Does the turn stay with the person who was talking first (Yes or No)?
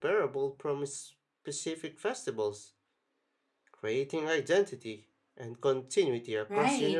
No